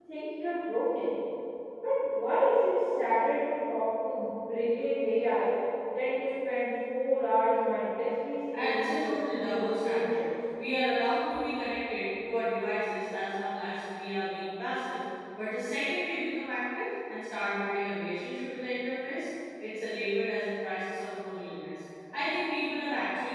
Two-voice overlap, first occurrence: 9 s

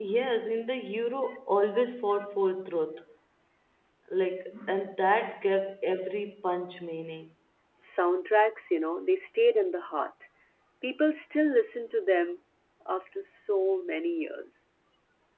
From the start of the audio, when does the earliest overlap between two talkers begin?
none

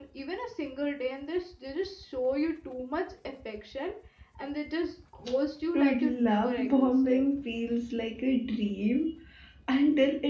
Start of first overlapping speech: 6 s

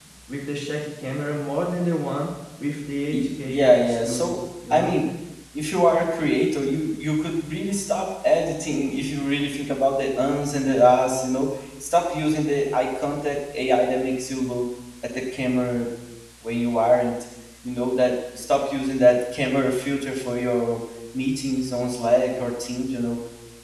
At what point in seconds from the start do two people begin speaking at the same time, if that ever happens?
3 s

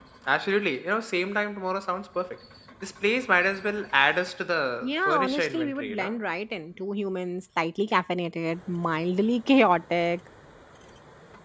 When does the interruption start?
5 s

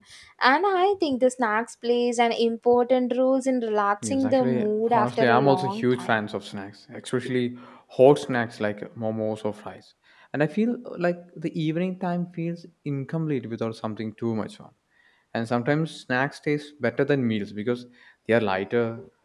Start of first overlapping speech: 4 s

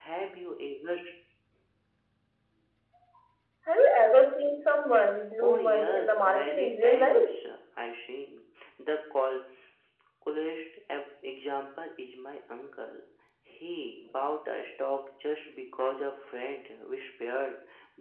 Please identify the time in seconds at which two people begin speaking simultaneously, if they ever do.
5 s

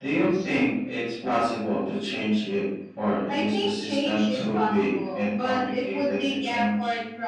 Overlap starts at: 3 s

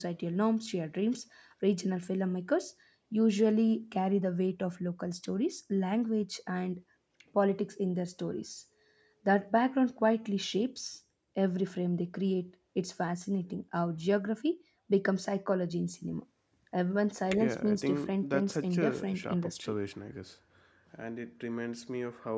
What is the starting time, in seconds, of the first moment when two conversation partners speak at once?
17 s

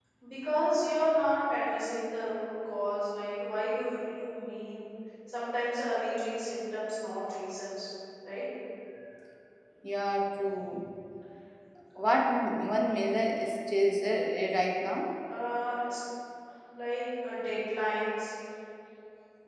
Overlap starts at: none

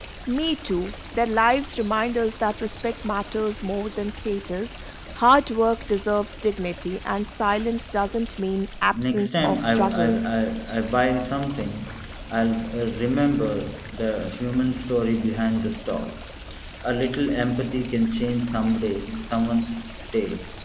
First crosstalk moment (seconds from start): 9 s

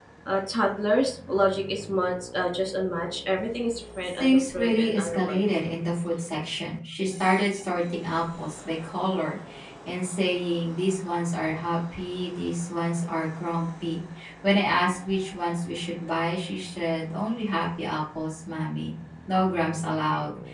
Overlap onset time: 4 s

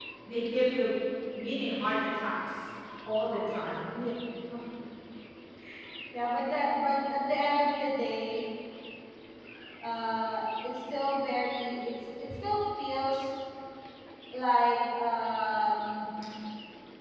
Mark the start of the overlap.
none

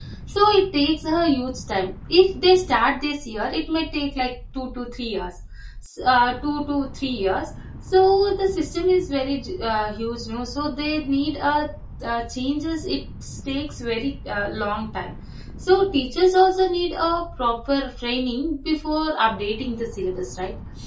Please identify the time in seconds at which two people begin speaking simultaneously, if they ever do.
none

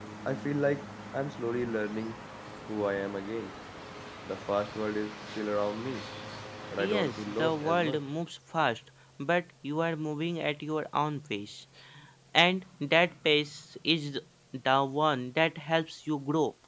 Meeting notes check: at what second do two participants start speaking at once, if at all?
7 s

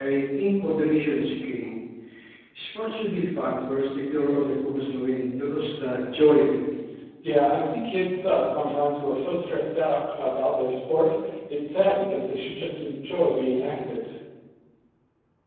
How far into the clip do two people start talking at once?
none

